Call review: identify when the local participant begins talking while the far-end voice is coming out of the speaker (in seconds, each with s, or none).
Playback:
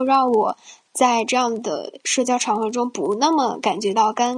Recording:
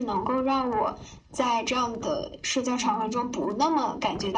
2.6 s